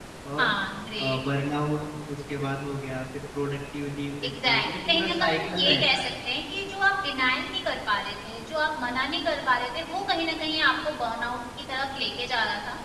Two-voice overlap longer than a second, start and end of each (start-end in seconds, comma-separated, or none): 4.2-6.1